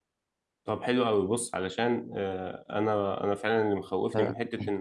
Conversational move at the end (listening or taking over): listening